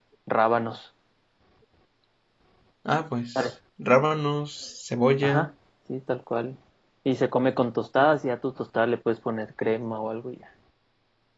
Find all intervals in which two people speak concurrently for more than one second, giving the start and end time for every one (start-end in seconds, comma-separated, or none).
none